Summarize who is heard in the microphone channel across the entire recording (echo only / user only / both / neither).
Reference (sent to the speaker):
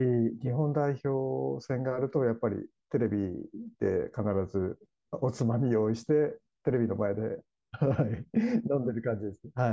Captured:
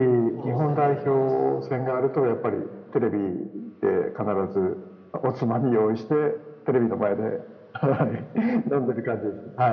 both